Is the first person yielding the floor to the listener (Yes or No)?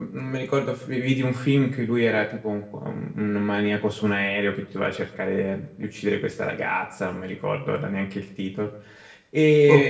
No